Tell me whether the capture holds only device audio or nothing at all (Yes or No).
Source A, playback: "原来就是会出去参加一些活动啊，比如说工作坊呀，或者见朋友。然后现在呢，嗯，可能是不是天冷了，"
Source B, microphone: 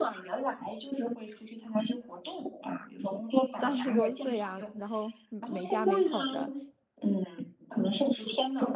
No